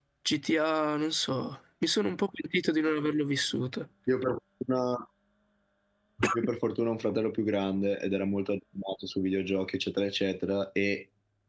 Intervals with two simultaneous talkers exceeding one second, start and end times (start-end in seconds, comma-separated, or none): none